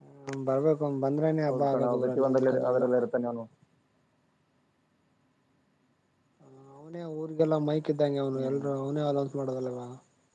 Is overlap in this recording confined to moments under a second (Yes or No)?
No